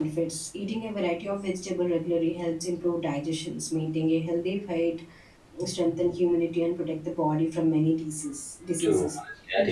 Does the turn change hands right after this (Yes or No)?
Yes